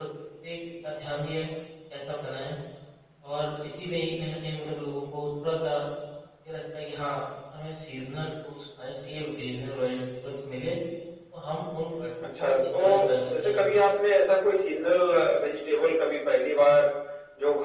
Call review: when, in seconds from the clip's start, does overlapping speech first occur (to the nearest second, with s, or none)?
12 s